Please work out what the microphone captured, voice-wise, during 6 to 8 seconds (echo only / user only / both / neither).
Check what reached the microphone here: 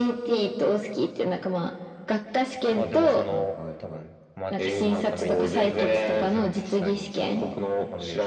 both